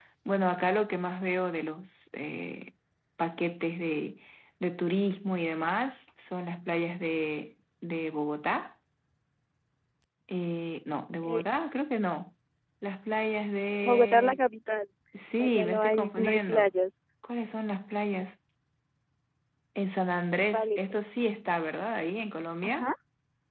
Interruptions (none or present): present